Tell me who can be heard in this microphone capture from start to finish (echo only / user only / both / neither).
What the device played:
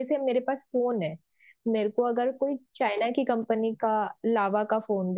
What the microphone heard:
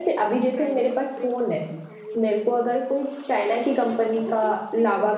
both